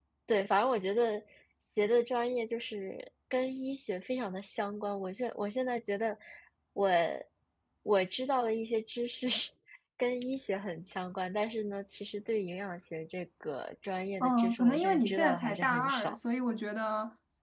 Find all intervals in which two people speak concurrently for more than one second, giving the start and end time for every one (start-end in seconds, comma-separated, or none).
14.2-16.2